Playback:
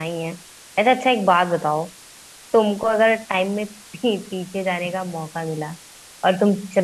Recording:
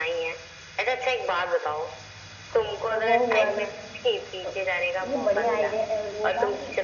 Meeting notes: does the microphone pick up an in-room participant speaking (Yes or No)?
Yes